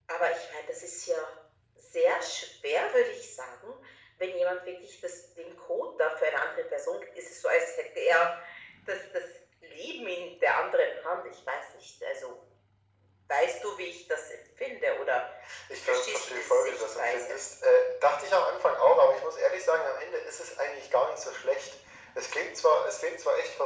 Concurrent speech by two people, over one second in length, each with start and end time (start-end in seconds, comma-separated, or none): 15.9-17.4